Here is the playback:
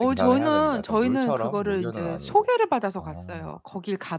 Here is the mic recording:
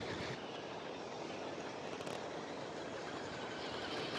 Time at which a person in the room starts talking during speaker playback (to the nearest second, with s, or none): none